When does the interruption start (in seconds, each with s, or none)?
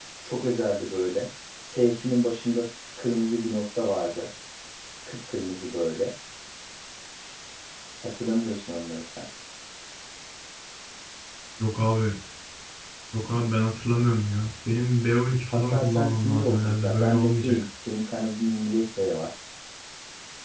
15.5 s